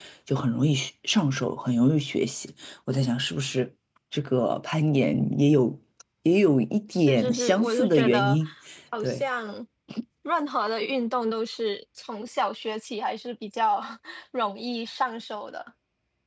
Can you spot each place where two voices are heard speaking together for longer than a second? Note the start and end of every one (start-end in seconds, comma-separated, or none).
7.0-8.4